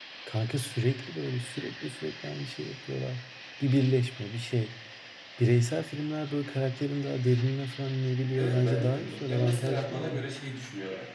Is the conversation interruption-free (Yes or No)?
No